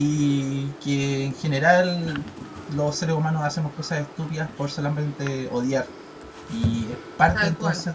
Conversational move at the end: listening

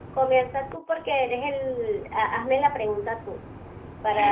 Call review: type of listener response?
taking over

